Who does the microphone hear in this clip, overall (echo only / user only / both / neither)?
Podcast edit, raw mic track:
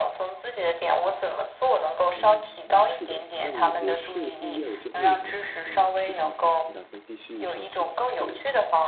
both